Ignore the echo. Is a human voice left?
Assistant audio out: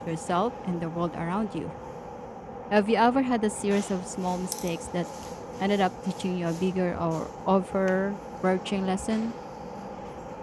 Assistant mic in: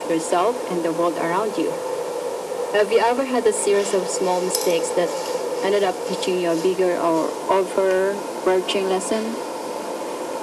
No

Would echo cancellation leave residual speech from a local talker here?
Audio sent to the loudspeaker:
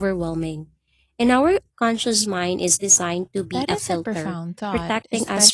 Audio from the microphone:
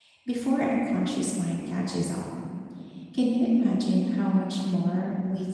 Yes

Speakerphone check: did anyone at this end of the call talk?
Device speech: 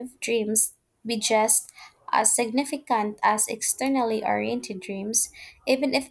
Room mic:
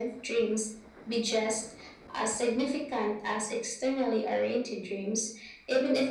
No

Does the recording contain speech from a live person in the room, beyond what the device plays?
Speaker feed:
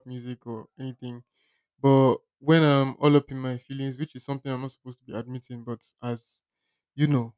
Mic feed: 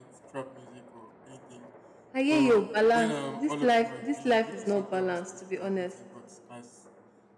Yes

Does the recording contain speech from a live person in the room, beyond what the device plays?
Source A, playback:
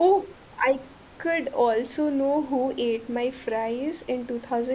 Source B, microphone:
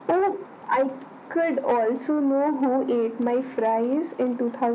No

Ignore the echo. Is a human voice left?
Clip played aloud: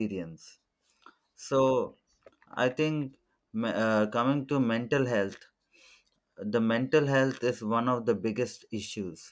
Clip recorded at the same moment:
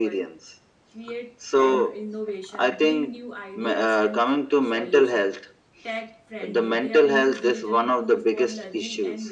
Yes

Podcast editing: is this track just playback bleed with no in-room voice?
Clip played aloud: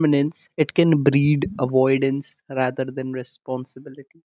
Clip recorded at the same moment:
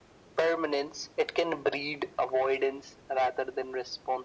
Yes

